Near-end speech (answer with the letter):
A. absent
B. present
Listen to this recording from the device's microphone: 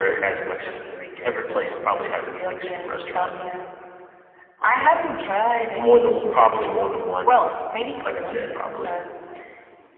A